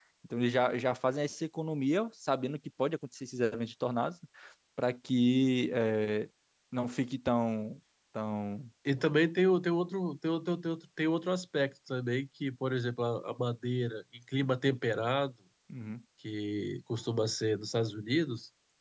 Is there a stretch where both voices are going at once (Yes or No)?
No